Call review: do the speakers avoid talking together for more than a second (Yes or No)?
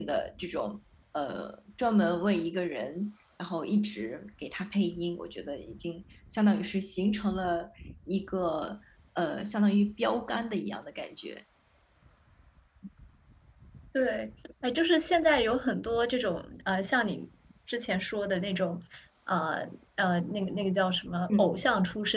Yes